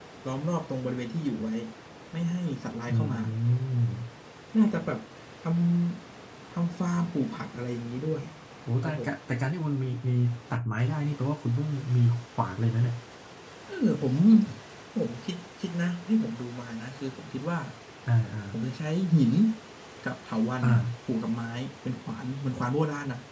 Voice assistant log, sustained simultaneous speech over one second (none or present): none